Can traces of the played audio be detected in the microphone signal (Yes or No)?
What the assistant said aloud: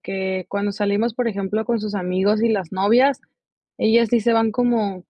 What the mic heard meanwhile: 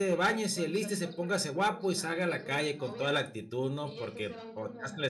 Yes